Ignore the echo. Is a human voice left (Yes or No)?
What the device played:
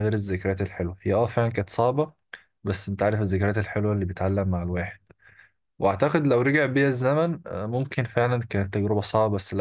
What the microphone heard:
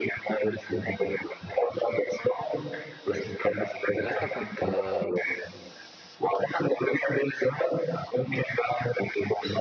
Yes